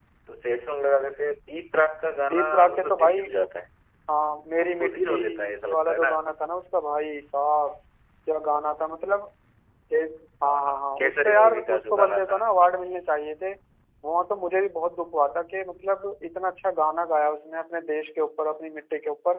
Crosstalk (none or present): present